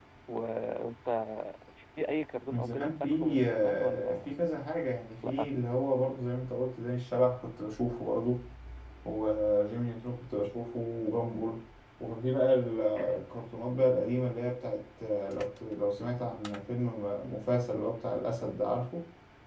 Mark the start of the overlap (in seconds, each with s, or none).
2.5 s